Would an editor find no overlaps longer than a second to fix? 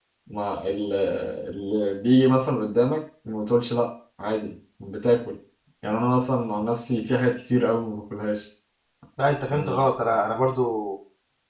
Yes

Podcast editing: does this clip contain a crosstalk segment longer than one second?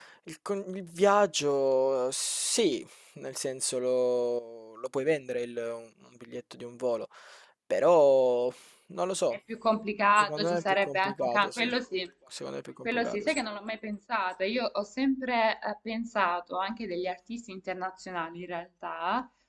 Yes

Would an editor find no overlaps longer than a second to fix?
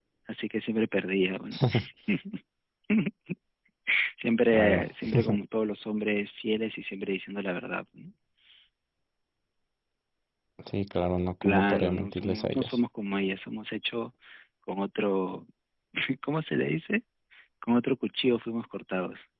No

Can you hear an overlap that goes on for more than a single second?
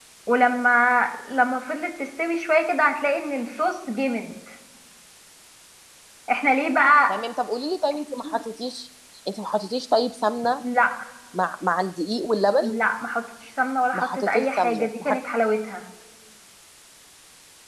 Yes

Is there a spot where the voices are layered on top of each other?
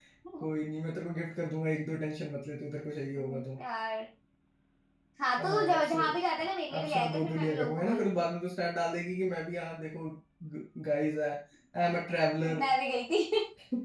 Yes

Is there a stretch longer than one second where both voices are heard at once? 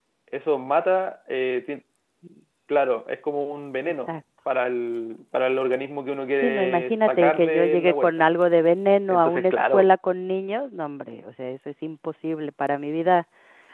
Yes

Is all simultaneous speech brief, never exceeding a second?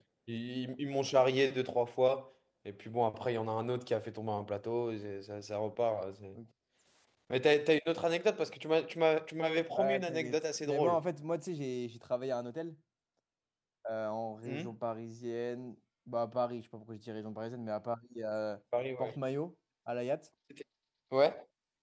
No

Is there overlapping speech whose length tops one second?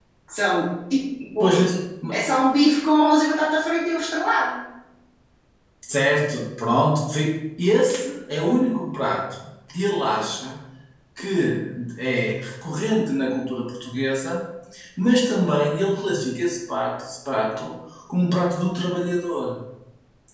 No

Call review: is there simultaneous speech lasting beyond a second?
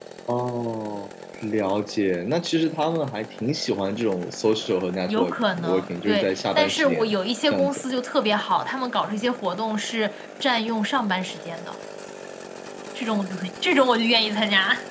Yes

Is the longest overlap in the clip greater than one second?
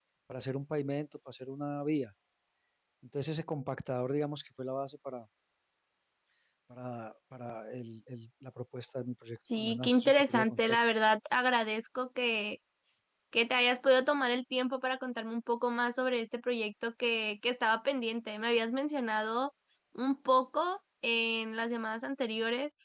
Yes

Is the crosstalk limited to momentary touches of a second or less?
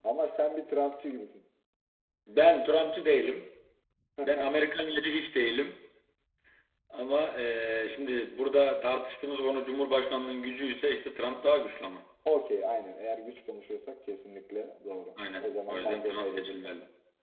No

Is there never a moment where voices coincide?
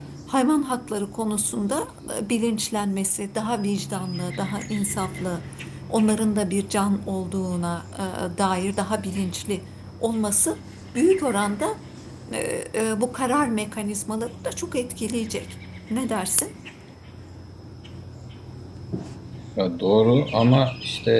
Yes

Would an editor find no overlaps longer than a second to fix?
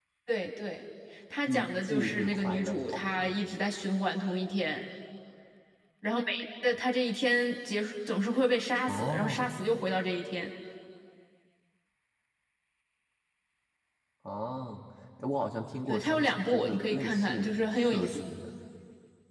No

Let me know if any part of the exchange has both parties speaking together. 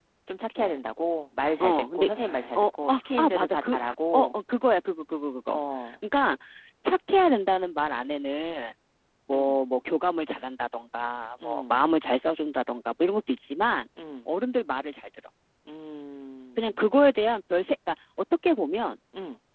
Yes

